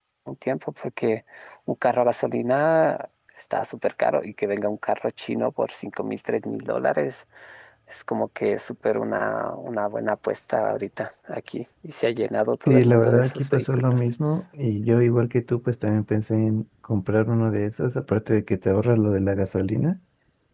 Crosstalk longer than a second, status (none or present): present